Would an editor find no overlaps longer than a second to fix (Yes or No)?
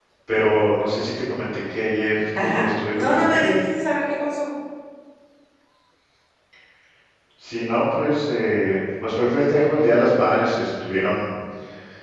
No